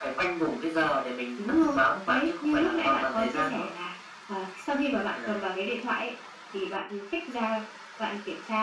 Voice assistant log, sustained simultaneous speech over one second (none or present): present